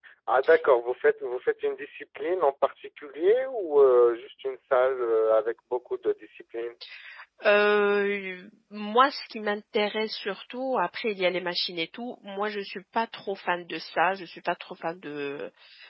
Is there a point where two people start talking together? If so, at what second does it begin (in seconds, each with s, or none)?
none